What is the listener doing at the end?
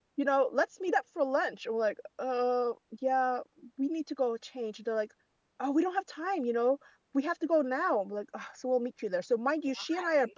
listening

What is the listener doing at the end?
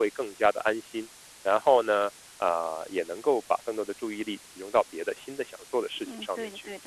taking over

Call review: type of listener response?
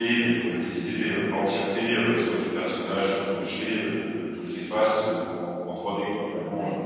taking over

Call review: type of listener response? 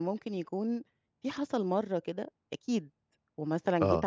listening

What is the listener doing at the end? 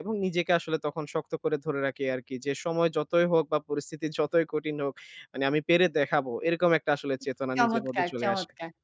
taking over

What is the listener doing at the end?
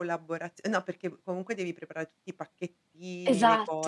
listening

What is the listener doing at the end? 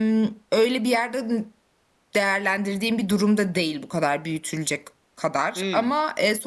listening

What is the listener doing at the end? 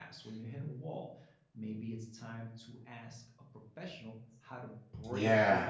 taking over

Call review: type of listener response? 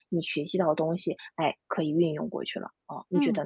taking over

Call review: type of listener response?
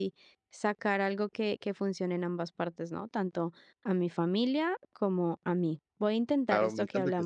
taking over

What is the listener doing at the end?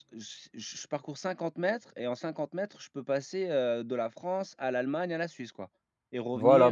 taking over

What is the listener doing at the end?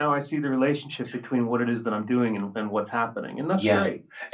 taking over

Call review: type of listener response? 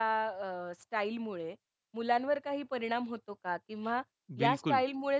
listening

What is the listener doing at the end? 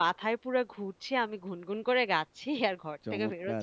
taking over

